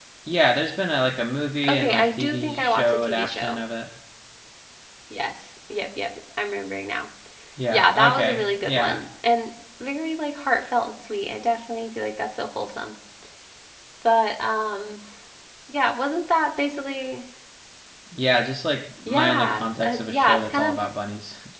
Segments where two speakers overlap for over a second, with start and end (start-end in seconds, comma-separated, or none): 1.7-3.6, 7.7-9.0, 19.1-20.8